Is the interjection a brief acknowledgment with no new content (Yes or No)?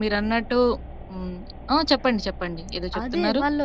No